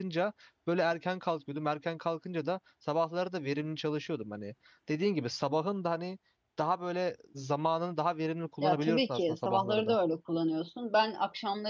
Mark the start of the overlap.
8.6 s

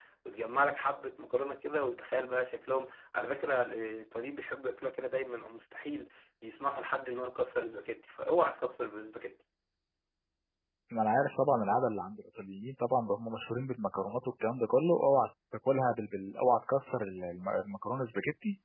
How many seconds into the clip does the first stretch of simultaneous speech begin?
none

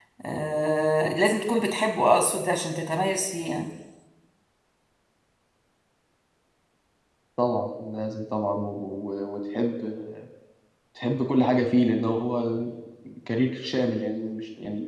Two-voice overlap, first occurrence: none

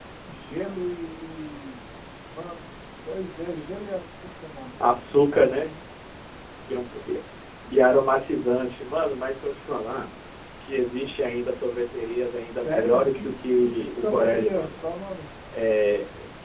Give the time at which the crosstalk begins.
12.5 s

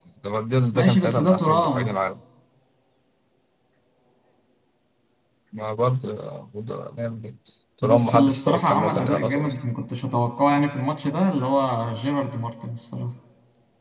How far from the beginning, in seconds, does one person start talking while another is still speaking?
0.7 s

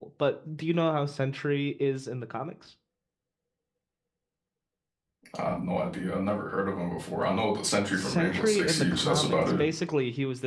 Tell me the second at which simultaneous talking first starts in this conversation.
7.9 s

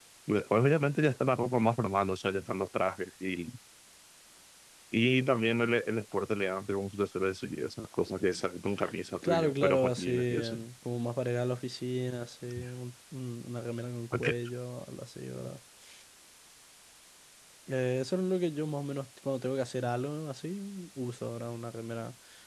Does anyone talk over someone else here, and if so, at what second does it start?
9.2 s

